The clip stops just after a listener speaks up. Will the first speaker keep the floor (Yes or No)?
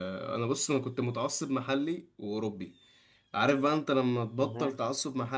Yes